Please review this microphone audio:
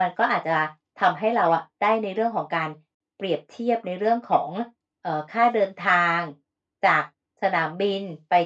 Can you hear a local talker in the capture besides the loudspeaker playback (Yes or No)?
No